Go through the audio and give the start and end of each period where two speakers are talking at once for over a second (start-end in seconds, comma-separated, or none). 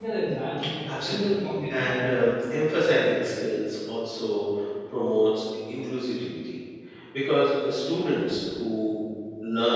0.9-2.1